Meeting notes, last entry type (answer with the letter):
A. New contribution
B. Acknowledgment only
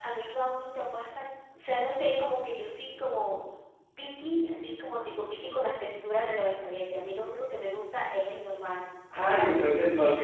A